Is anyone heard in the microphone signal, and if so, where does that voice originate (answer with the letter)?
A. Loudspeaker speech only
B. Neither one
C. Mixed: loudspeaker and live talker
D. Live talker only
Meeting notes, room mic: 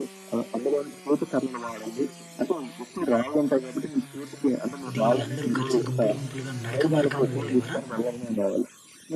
C